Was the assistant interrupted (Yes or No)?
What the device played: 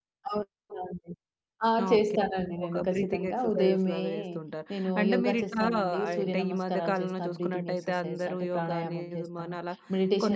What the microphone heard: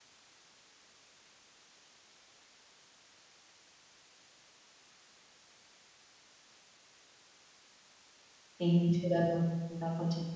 Yes